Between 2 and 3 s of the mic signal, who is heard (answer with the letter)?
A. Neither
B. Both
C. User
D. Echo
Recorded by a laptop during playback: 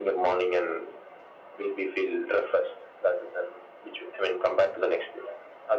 D